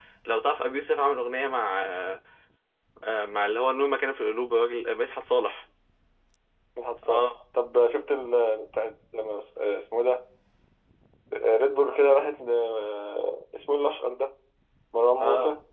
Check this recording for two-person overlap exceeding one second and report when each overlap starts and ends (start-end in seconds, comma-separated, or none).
none